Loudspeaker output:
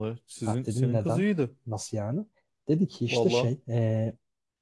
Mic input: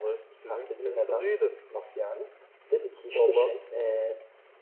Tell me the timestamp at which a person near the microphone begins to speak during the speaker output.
none

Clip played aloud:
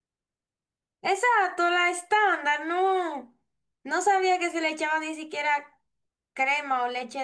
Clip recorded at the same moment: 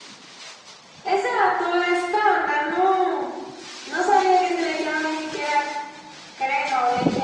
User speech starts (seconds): none

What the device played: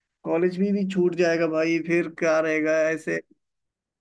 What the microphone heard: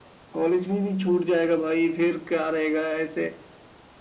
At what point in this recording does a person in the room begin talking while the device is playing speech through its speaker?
none

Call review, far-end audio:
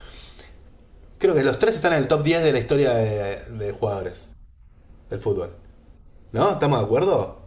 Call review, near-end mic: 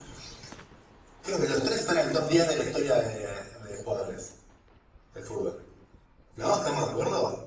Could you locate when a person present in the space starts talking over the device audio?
none

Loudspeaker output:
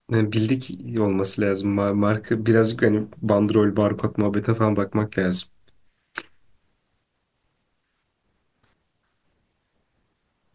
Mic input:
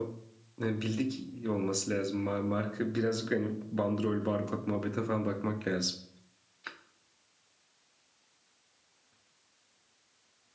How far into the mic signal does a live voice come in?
none

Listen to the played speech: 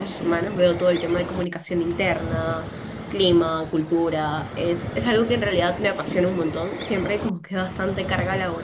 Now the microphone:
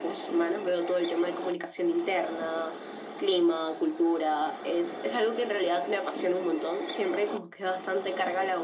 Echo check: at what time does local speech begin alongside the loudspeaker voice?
none

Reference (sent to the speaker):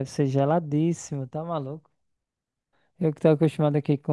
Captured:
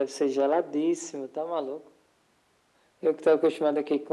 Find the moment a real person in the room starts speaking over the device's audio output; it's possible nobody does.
none

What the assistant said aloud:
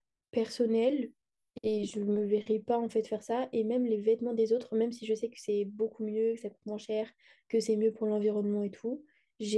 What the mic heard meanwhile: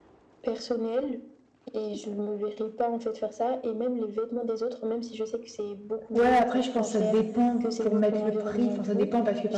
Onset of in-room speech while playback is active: 6.1 s

